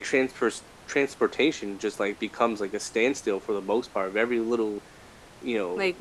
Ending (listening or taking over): listening